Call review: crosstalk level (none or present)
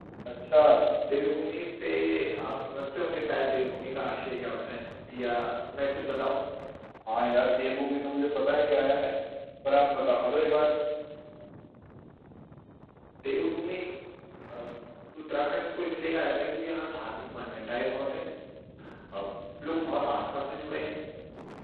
none